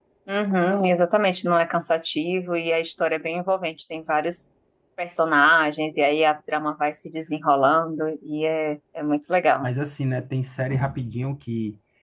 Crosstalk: none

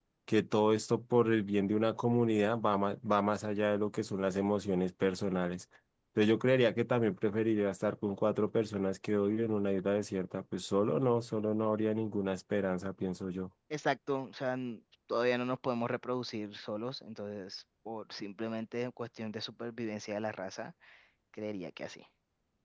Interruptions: none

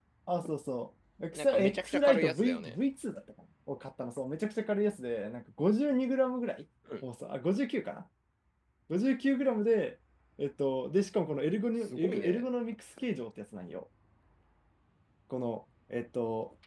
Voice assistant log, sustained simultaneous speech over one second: present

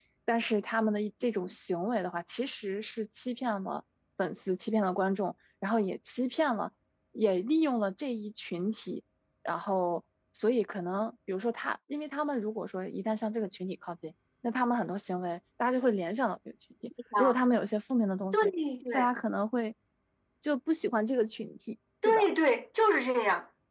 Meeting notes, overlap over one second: none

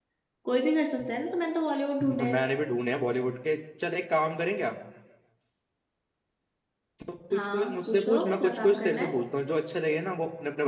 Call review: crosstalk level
present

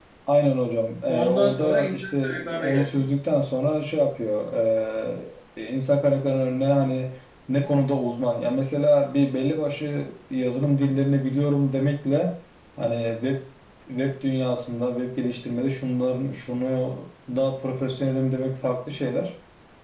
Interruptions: present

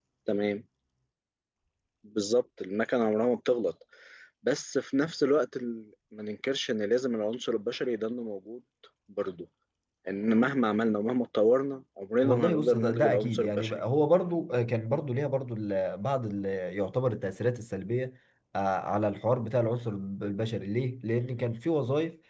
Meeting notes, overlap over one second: present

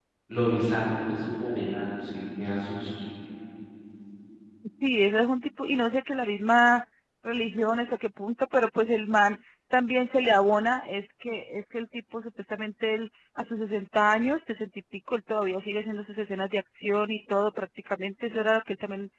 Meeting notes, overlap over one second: none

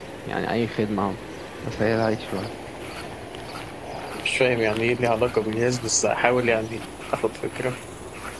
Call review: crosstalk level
none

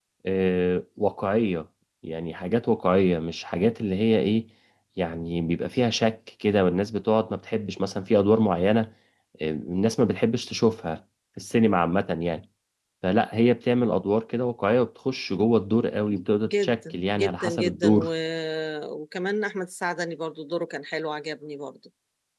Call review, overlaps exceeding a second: present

